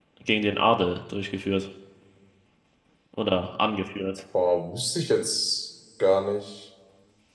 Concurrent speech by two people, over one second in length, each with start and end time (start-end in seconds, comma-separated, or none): none